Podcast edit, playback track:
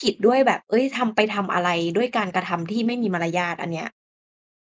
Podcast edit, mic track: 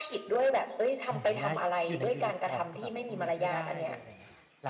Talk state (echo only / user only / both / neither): both